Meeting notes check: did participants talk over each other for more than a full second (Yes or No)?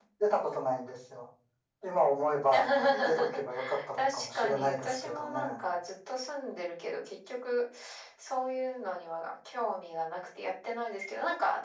Yes